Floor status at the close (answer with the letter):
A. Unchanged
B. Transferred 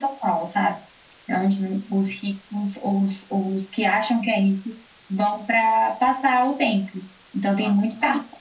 A